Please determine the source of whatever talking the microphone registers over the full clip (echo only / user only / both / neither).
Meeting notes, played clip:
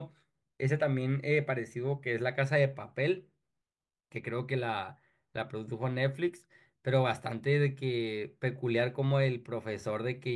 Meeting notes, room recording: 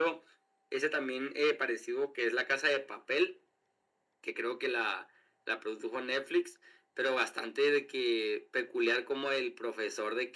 echo only